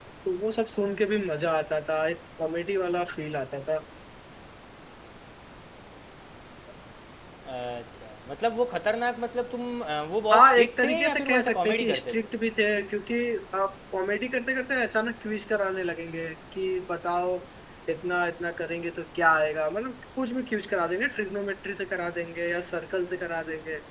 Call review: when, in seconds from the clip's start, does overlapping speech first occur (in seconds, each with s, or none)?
10.3 s